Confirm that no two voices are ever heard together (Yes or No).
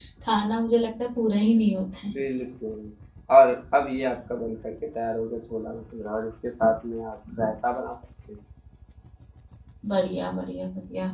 Yes